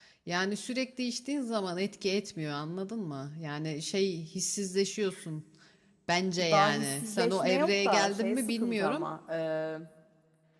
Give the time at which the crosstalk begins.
6 s

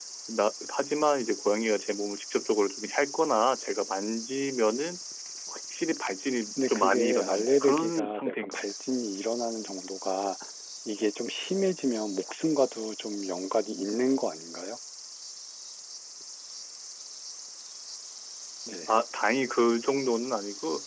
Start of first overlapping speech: 7 s

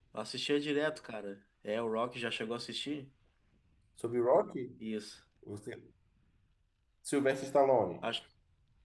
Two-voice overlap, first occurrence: none

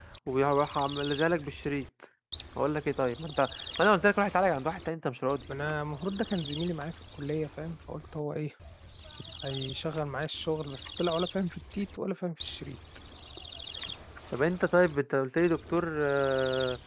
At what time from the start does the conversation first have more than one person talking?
none

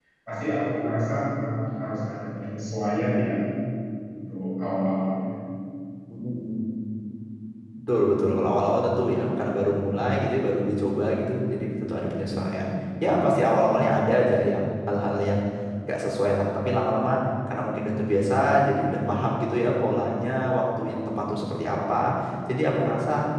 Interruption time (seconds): none

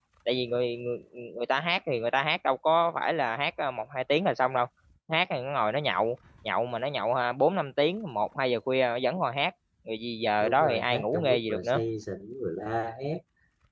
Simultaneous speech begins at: 10 s

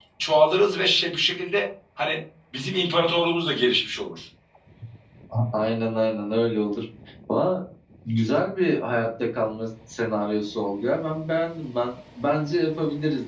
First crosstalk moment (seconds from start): none

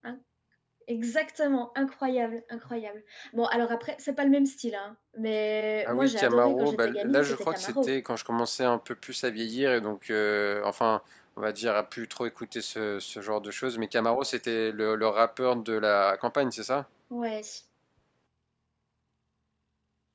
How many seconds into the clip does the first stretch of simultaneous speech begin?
6 s

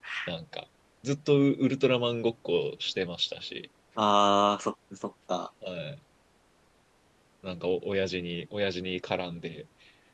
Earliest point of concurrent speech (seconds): none

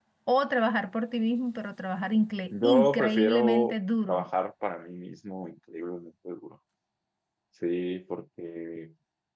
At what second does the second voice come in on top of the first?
3 s

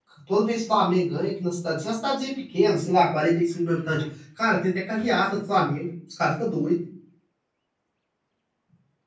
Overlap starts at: none

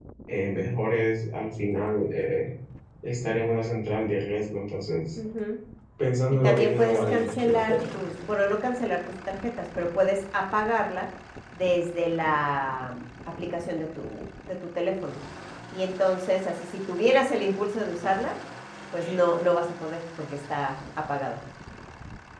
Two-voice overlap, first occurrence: 6 s

